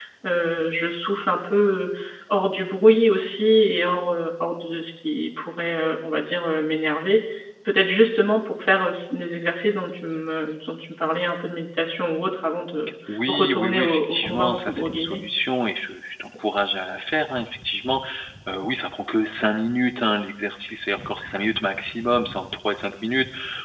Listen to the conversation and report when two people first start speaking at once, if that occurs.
13.1 s

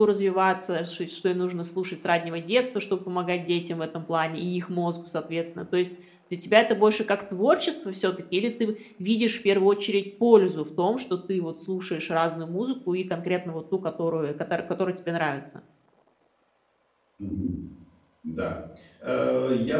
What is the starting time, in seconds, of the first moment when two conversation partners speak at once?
none

